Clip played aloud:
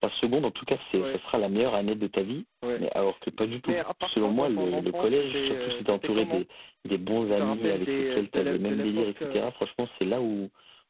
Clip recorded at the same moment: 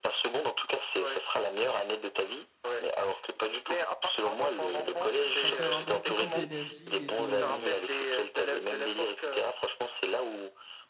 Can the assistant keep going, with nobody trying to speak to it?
No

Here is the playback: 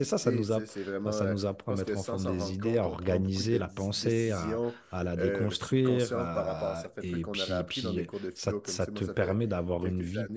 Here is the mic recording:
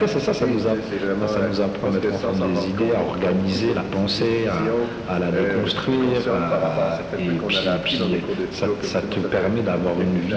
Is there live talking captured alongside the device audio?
No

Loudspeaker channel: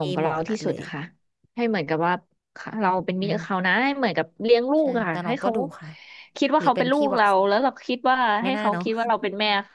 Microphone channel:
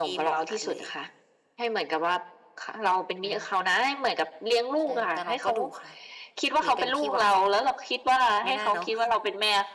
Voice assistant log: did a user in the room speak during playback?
No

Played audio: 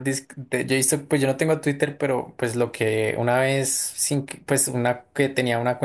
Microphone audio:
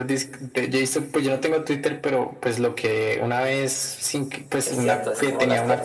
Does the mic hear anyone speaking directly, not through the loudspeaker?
Yes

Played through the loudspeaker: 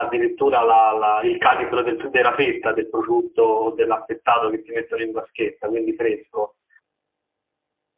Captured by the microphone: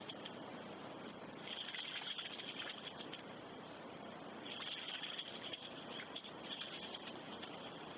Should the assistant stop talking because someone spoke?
No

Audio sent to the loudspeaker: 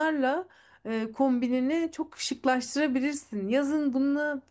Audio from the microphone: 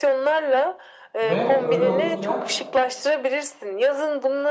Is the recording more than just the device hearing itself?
Yes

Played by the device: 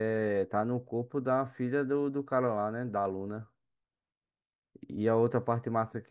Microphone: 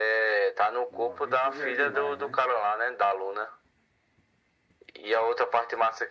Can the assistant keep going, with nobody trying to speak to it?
No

